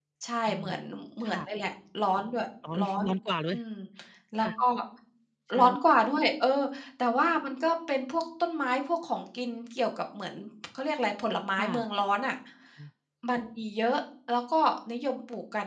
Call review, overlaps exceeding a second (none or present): none